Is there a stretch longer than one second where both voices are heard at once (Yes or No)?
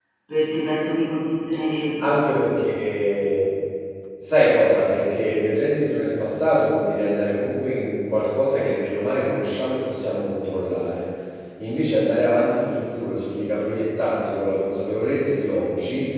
No